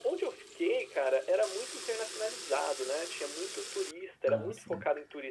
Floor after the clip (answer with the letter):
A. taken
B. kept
B